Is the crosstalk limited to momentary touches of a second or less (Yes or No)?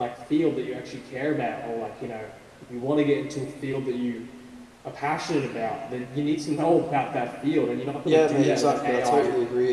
No